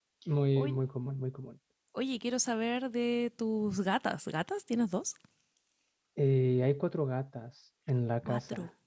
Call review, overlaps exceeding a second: none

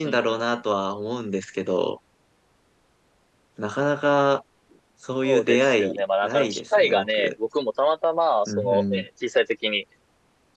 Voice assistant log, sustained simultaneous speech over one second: present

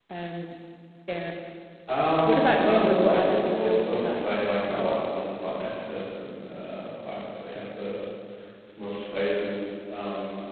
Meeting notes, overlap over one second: present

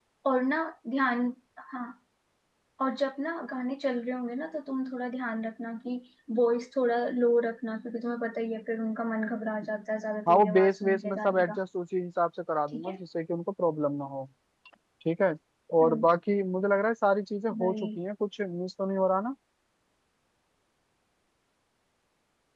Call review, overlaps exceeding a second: present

